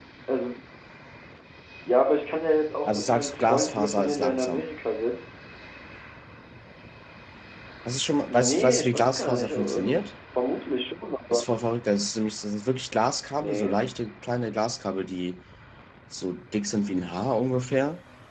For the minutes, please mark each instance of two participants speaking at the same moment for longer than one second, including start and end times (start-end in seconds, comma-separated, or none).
2.9-4.6, 8.3-10.1